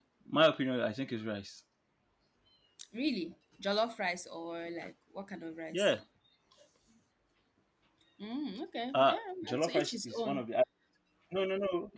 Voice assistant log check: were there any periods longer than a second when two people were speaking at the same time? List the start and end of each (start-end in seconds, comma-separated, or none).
8.9-10.4